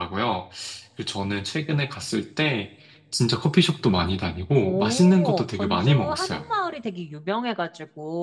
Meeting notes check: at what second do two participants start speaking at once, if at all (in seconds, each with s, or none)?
4.6 s